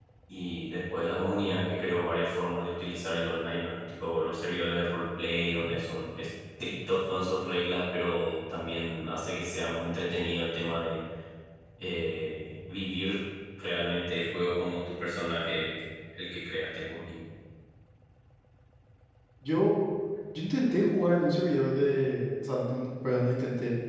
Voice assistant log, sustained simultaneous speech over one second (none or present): none